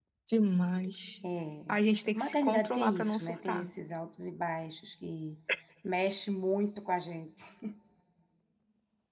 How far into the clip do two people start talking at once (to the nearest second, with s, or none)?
2 s